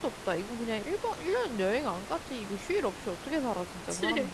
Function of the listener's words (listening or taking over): taking over